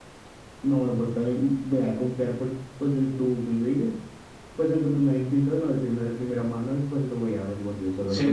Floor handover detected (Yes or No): Yes